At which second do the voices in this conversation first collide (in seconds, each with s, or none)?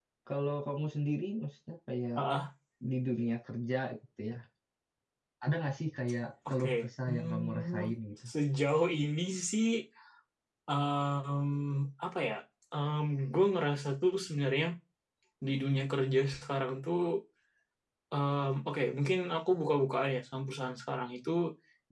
6.5 s